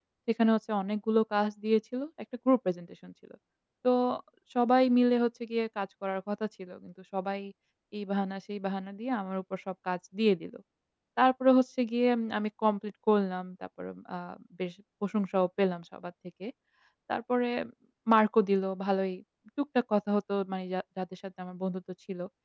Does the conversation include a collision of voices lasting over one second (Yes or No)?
No